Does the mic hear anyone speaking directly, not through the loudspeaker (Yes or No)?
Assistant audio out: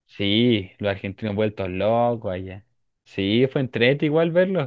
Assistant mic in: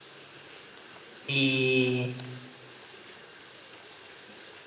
Yes